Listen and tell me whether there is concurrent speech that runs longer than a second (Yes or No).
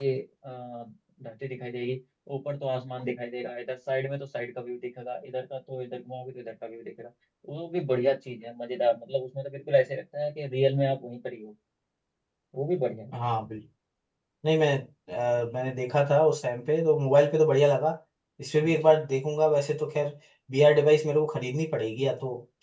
No